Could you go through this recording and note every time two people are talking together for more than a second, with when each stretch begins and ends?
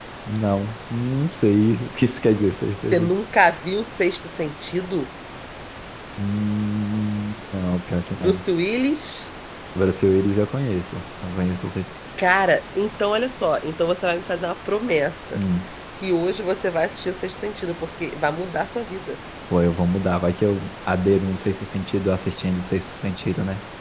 none

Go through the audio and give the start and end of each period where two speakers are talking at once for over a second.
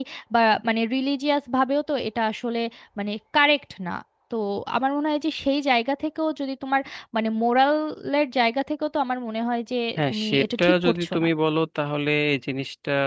10.0-11.2

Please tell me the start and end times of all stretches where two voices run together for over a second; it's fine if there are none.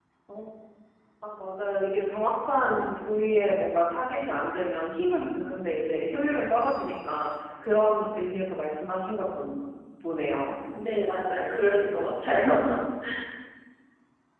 none

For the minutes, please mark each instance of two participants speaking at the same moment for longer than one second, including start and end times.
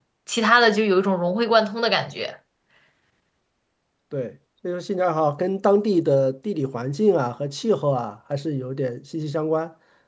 none

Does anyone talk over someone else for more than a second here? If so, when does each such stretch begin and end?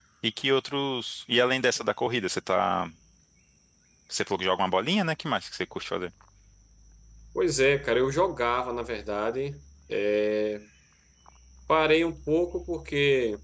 none

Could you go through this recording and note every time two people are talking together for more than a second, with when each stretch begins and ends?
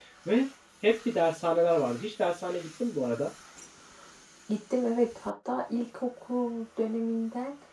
none

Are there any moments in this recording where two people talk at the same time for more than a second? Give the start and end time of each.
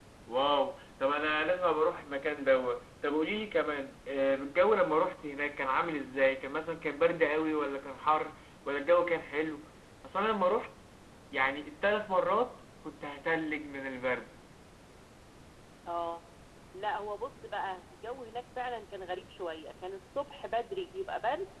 none

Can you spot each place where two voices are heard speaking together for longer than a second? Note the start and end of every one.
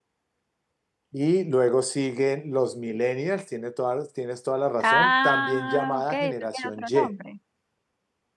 4.8-6.9

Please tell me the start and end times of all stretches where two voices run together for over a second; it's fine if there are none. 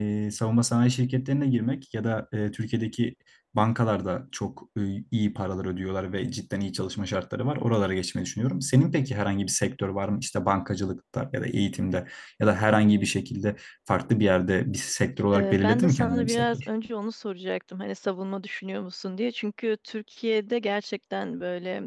15.3-16.7

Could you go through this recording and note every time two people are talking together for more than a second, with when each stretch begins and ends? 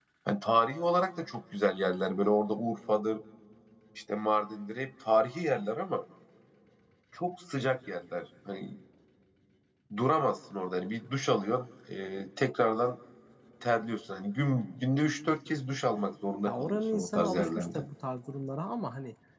16.4-17.8

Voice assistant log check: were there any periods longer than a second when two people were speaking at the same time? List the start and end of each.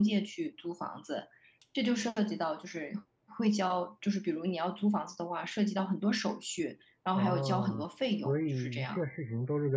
7.2-9.0

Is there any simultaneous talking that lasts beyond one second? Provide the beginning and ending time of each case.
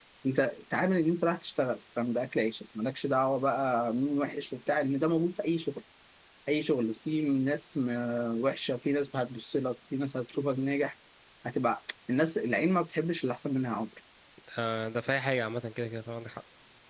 none

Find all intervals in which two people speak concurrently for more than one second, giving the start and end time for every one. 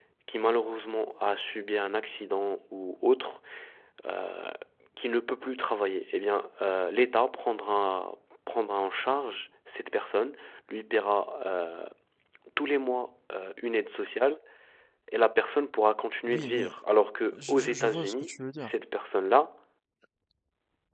17.3-18.7

